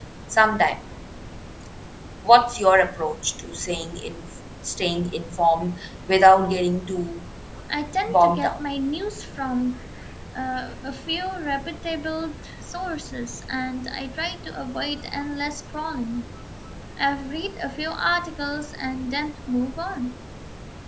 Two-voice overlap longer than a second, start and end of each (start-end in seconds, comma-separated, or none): none